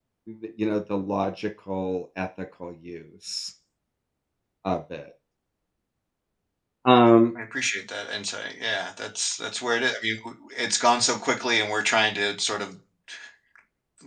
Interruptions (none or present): none